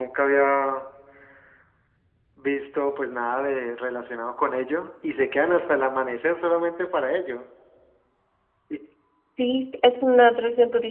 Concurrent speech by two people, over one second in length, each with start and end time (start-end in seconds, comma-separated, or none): none